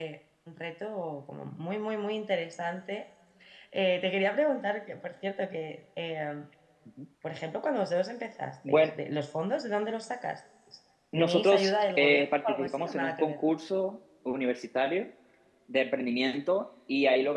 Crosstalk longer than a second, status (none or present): present